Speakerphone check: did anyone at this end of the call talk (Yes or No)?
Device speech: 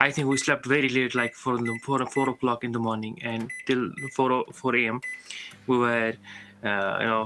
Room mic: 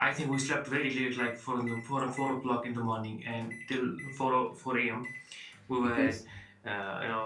Yes